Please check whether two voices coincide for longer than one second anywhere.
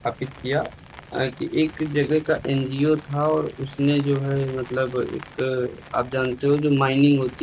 No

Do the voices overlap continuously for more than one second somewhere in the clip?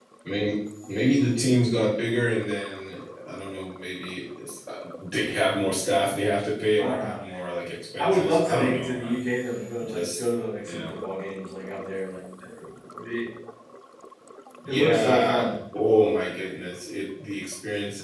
Yes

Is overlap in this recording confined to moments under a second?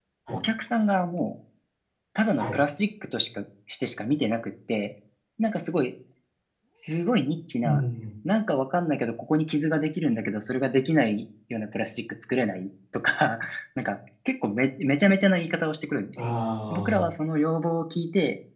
Yes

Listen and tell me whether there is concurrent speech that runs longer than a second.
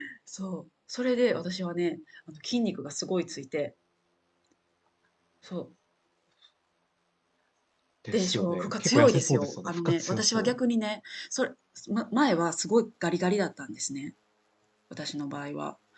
Yes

